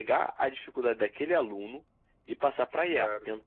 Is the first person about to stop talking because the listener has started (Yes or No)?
No